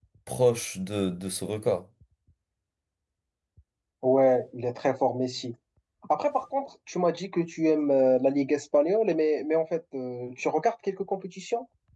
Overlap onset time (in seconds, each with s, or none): none